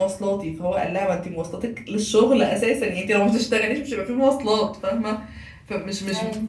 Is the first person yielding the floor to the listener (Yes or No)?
No